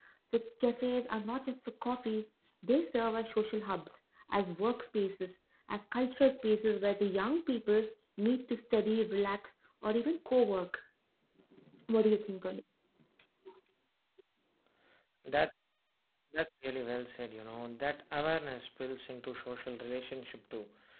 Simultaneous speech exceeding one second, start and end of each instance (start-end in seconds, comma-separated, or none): none